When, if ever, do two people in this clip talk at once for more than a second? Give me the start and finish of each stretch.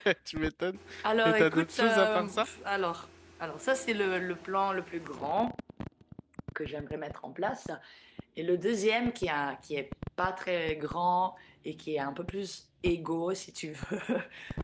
1.2-2.5

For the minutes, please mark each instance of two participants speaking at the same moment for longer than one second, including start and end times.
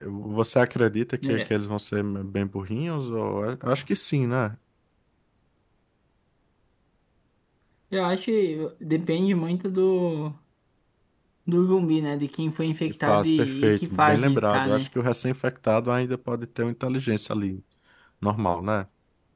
13.1-14.9

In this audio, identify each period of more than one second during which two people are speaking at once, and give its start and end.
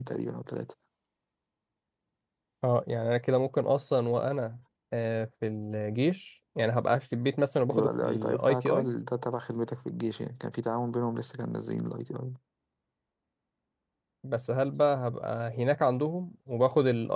7.7-8.9

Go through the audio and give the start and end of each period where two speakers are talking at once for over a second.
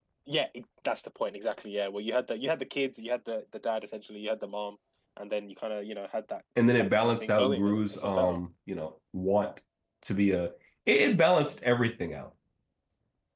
6.8-8.4

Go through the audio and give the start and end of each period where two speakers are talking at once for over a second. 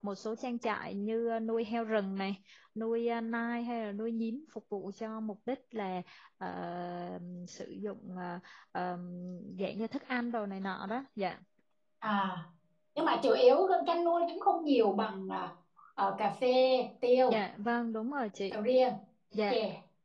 none

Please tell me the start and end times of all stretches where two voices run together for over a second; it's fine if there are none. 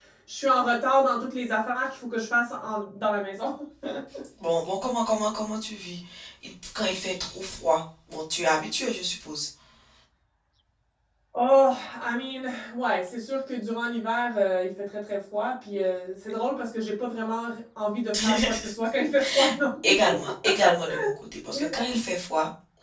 none

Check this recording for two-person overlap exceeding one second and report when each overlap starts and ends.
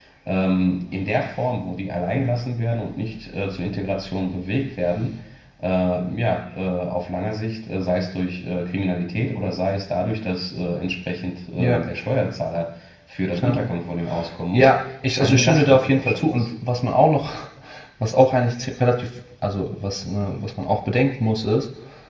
15.2-16.5

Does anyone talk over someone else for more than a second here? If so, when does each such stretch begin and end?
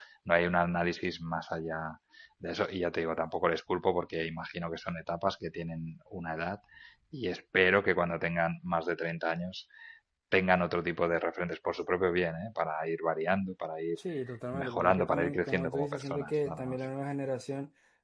14.5-16.8

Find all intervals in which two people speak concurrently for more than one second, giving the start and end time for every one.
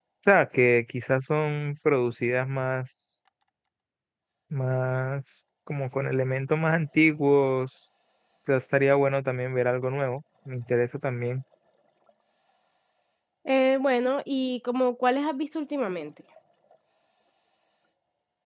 none

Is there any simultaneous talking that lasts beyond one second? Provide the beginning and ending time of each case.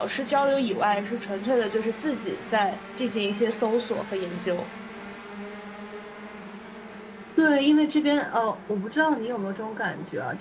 none

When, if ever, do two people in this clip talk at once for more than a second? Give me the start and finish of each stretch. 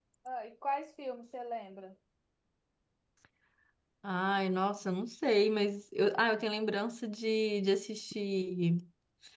none

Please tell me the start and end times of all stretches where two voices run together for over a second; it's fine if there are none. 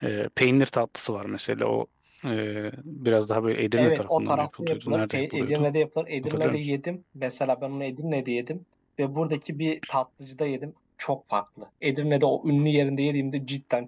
3.8-5.7

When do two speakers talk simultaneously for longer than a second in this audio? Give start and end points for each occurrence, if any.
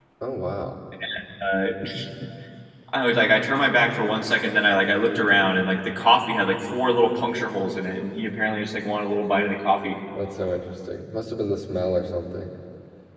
none

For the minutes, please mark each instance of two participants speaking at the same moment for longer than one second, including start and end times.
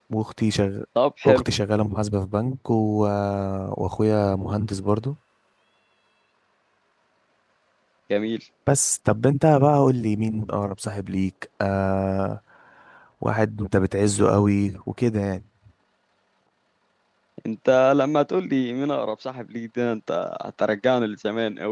none

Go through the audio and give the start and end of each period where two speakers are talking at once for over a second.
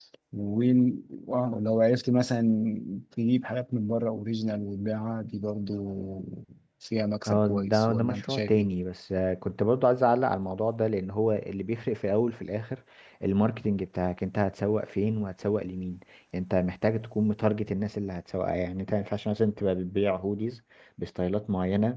7.3-8.7

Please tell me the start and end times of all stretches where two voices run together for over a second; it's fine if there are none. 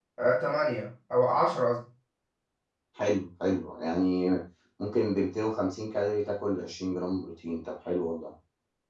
none

